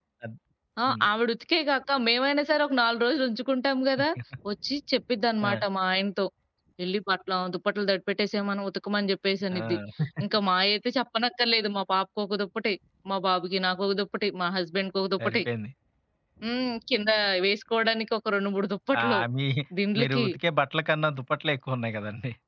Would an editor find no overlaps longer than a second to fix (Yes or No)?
Yes